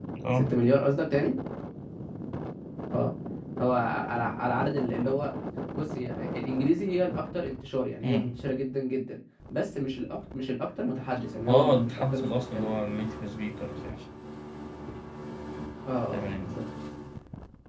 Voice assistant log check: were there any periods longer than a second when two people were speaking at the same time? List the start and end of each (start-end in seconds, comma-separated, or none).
11.5-13.0